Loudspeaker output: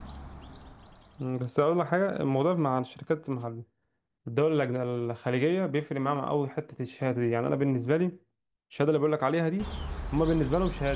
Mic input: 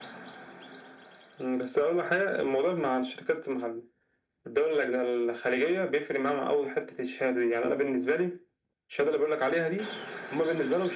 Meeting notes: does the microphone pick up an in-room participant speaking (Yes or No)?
No